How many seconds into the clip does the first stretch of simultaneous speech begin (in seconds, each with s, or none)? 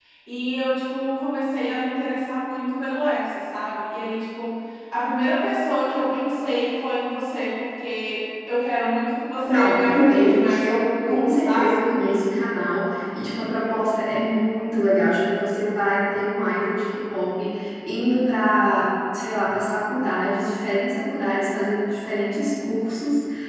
9.4 s